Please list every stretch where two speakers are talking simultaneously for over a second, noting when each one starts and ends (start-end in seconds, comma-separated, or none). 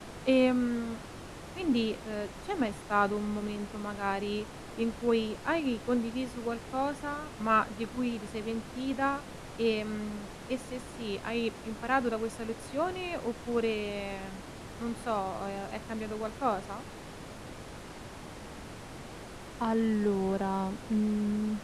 none